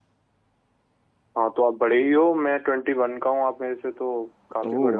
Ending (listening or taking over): taking over